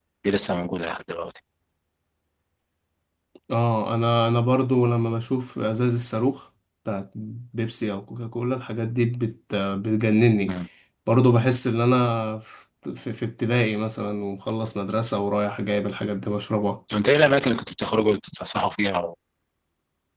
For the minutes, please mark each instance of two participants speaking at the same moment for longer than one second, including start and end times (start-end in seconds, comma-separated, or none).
none